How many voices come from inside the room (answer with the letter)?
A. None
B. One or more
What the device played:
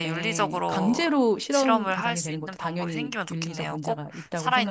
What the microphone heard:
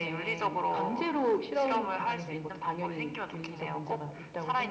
A